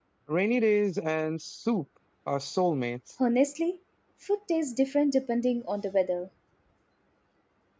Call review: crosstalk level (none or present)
none